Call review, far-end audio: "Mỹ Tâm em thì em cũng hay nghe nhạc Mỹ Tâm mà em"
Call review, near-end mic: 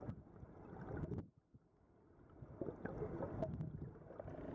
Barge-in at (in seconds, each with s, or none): none